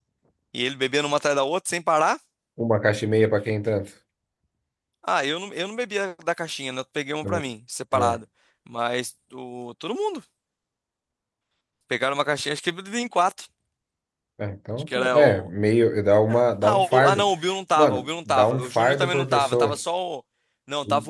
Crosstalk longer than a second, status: present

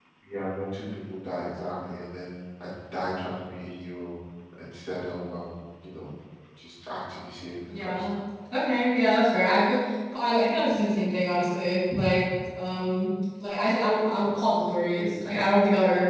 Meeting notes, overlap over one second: none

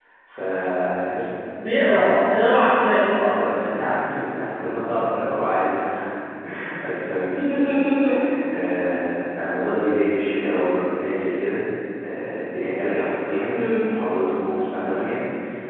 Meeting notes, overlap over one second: none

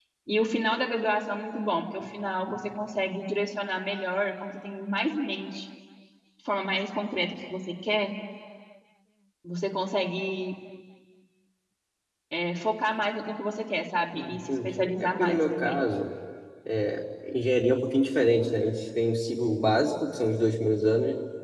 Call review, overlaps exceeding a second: present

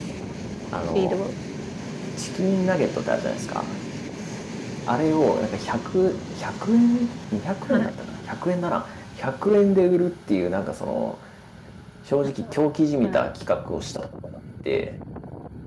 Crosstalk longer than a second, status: none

